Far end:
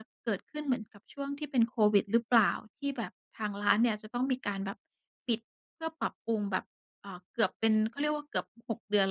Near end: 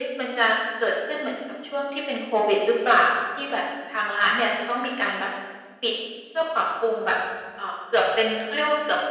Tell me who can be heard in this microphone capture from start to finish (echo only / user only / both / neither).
echo only